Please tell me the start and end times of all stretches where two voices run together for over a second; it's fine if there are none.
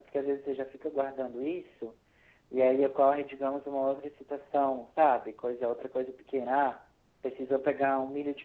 none

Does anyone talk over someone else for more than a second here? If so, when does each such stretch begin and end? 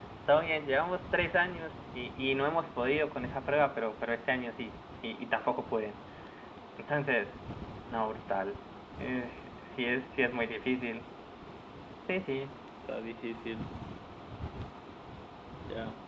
none

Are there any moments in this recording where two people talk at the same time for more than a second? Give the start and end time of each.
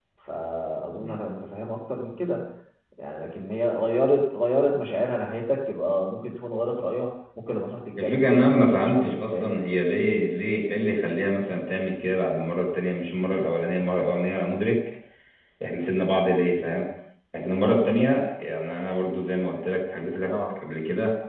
8.0-9.5

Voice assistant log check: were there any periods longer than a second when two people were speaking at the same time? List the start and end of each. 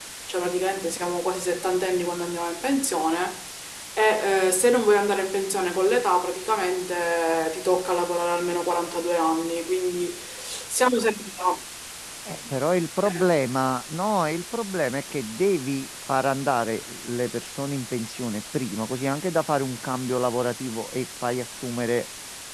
none

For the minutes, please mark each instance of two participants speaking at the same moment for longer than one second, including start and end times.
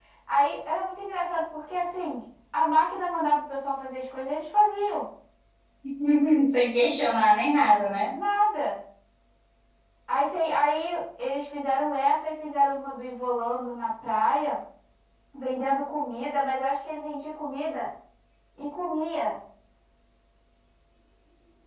none

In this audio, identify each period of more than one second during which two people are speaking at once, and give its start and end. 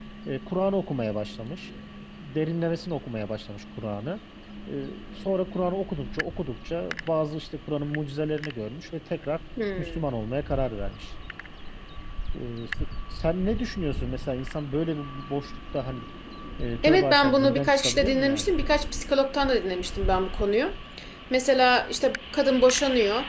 16.8-18.5

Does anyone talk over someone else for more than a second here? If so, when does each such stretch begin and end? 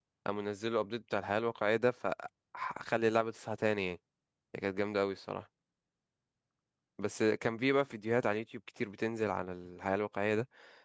none

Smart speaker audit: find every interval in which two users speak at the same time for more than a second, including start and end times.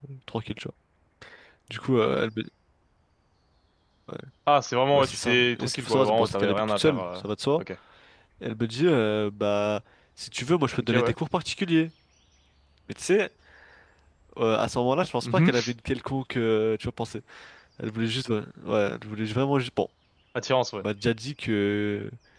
4.9-7.2

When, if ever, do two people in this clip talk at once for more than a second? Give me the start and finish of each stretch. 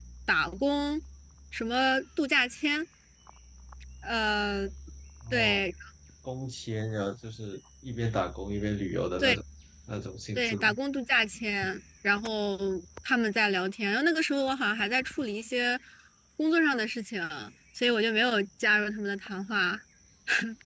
none

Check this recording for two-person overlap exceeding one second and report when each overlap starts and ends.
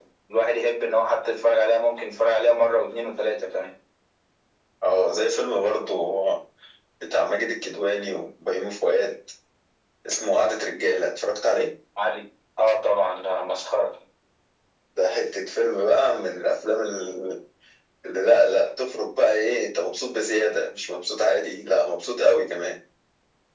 none

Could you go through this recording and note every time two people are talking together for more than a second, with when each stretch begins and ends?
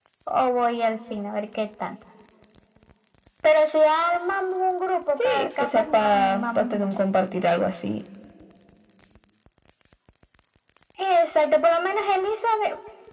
5.2-6.9

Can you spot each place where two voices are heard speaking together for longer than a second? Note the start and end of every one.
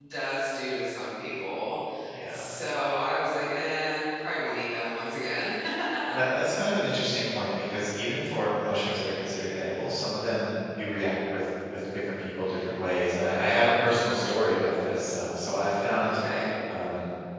none

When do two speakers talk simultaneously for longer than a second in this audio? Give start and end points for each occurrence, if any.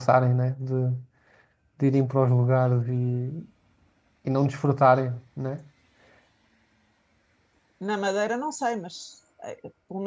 none

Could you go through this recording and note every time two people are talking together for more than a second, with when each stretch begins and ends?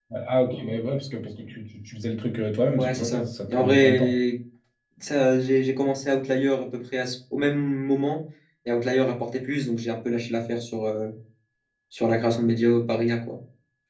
2.8-4.2

